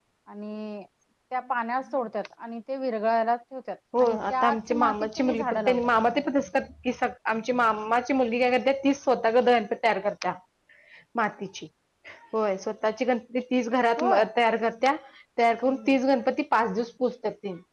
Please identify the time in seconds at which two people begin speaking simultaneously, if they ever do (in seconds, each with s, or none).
4.0 s